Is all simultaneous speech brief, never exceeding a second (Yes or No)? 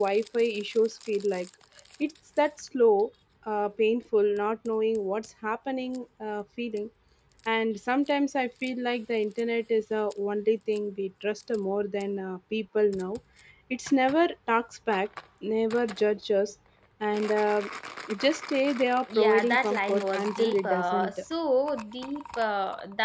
No